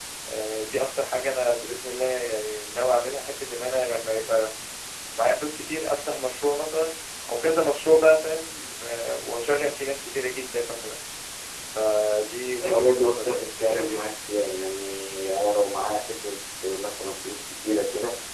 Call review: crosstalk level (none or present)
present